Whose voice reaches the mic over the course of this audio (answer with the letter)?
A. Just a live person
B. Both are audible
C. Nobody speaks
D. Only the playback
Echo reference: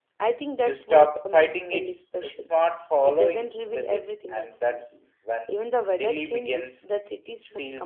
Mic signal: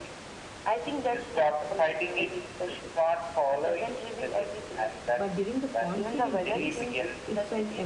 B